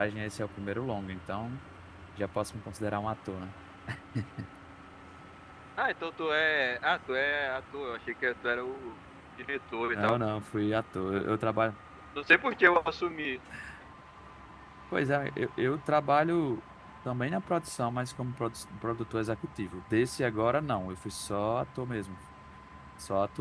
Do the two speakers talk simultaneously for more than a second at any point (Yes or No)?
No